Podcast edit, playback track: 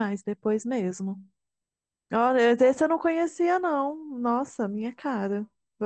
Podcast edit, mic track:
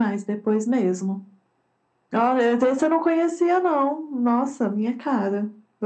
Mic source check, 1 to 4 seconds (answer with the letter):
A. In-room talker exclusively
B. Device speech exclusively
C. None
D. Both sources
B